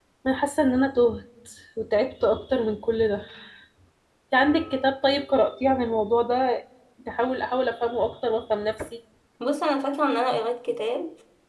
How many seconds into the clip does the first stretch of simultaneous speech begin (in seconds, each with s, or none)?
none